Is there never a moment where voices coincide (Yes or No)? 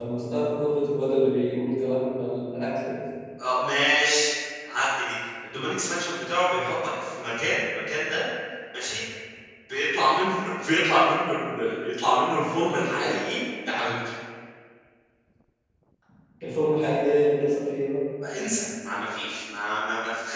Yes